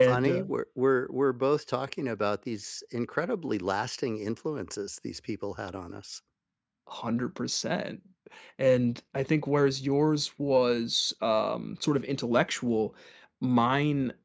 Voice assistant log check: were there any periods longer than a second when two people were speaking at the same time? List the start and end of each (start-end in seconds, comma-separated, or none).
none